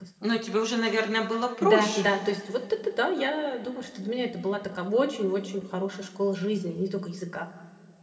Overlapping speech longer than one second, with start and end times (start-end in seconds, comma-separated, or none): none